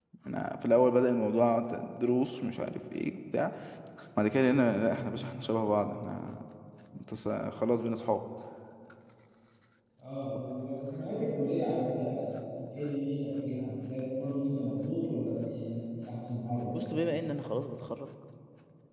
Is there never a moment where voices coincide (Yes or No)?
Yes